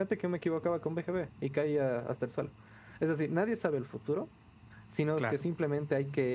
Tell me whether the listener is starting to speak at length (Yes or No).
No